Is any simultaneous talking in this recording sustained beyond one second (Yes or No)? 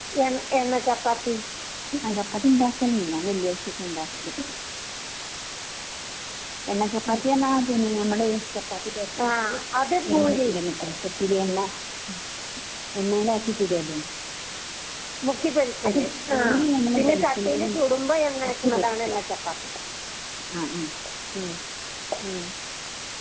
Yes